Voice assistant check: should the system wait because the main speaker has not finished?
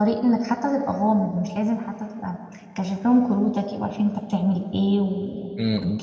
Yes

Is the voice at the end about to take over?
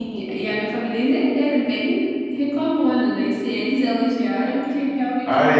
Yes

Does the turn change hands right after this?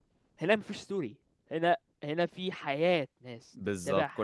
Yes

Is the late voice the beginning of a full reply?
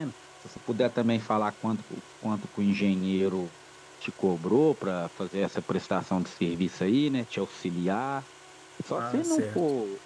Yes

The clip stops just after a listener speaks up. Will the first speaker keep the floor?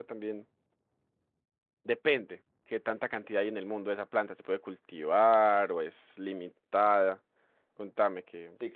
No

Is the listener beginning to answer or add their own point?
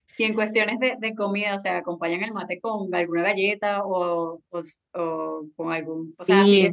No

